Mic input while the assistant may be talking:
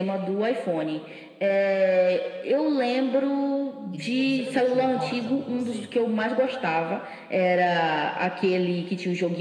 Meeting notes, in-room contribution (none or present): present